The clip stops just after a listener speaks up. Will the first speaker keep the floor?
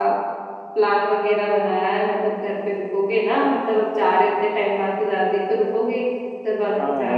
No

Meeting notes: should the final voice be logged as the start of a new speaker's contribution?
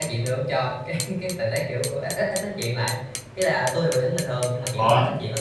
No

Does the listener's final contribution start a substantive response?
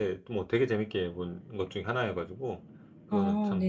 Yes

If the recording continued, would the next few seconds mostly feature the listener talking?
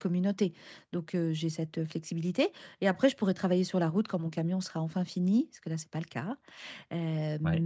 No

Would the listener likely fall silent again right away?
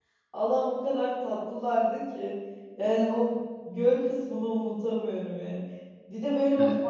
Yes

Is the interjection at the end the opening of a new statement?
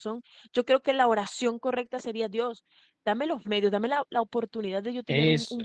No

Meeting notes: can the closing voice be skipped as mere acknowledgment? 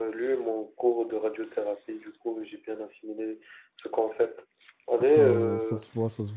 No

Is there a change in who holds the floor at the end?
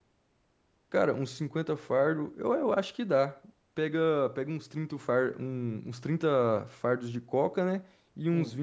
No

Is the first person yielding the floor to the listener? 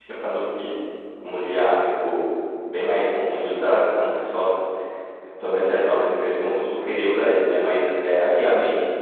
No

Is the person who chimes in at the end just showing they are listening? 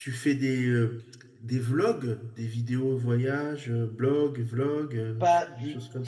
No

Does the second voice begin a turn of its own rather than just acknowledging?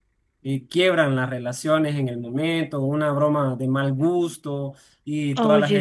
No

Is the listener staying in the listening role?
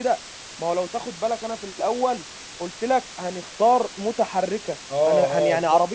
No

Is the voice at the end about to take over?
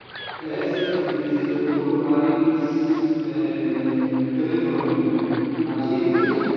No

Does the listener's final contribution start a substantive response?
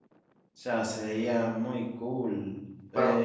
Yes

